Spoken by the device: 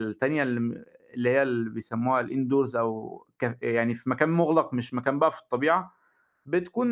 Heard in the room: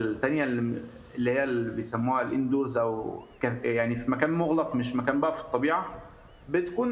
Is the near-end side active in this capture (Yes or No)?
No